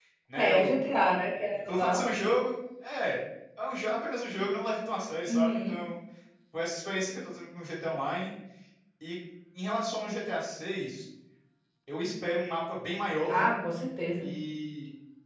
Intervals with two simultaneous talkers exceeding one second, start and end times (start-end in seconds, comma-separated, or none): none